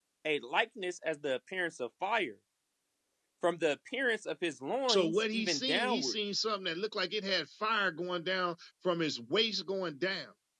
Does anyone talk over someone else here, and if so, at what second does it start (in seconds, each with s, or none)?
4.9 s